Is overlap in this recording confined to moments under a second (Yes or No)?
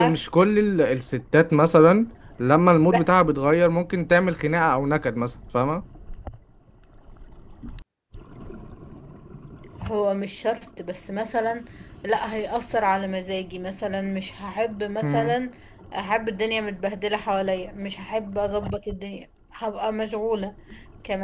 Yes